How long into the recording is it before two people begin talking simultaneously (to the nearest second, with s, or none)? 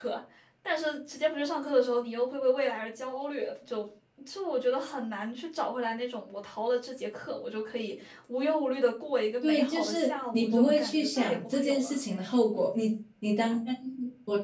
9 s